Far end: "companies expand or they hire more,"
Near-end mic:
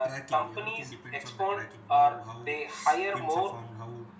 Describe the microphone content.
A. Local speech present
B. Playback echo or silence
A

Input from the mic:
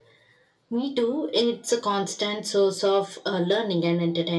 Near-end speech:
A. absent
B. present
A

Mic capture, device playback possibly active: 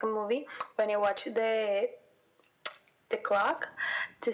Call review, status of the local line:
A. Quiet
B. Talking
A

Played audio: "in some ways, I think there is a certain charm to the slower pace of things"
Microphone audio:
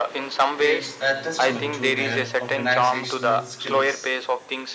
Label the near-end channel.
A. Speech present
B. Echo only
A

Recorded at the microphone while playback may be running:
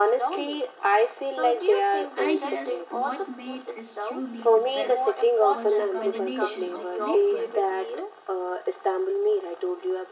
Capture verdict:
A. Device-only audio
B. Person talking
B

